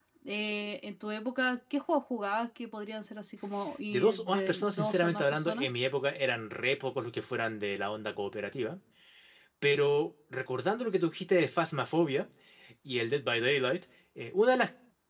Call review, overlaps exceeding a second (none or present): present